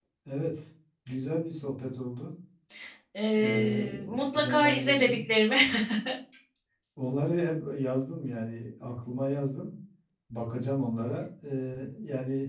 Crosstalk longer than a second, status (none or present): present